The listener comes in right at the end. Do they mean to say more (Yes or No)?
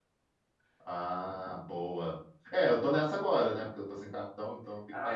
Yes